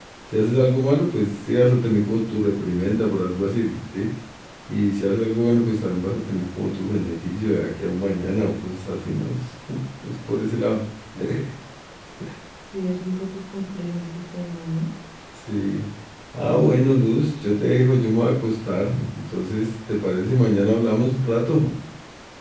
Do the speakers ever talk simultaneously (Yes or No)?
No